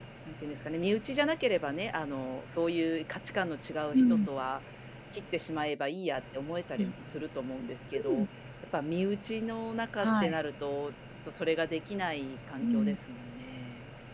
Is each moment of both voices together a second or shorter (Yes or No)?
Yes